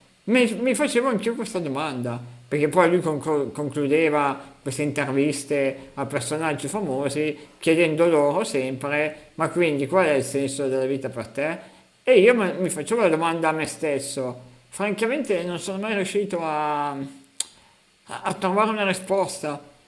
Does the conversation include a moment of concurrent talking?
No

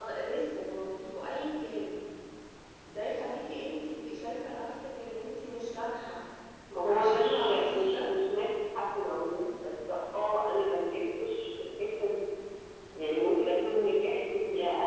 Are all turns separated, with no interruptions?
No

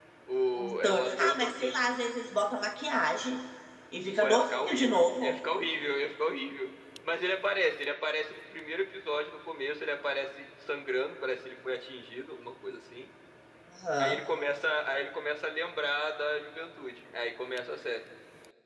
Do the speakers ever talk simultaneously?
Yes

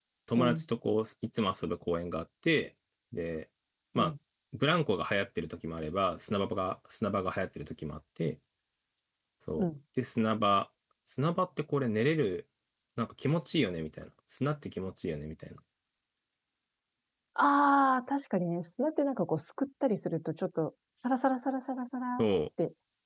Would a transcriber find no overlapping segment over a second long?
Yes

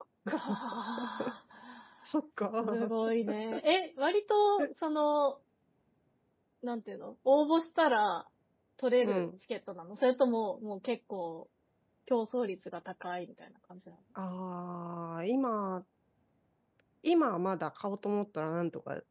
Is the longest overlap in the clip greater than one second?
No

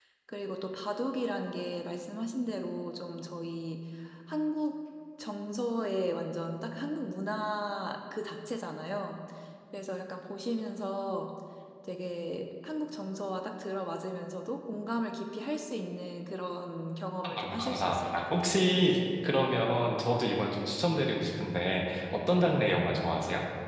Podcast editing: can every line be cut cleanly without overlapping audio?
No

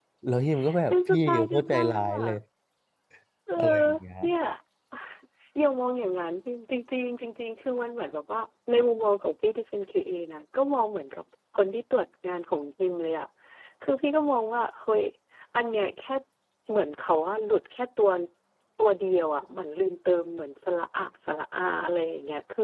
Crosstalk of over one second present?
Yes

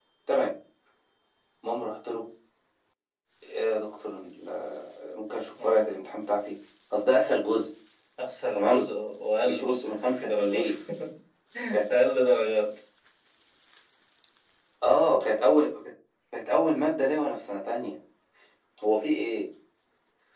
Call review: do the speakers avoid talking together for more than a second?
No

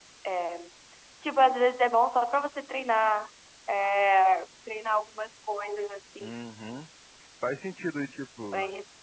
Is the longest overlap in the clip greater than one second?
No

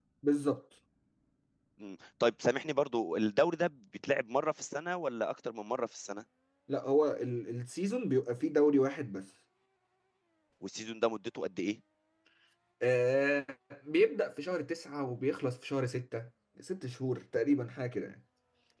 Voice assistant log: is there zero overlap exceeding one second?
Yes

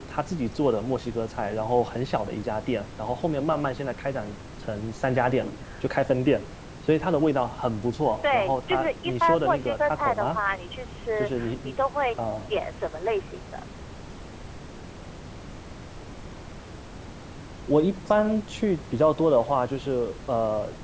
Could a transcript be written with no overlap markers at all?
No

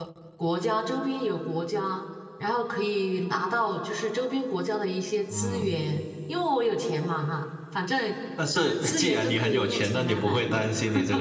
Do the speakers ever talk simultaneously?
Yes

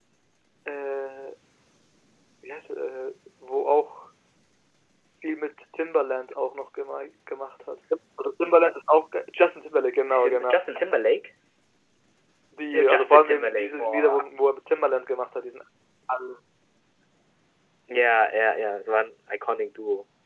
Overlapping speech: Yes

